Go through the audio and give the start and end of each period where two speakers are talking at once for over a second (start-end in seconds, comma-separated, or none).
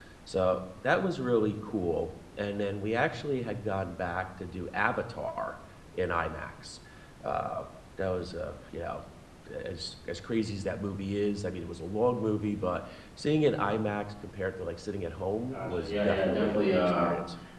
15.5-17.1